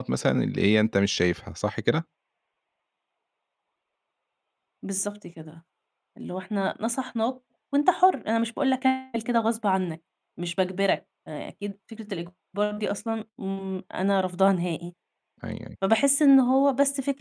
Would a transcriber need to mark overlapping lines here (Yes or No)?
No